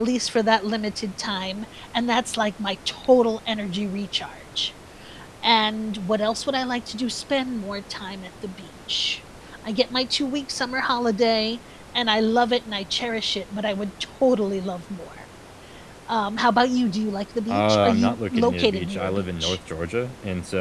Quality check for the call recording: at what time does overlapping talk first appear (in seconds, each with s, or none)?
17.5 s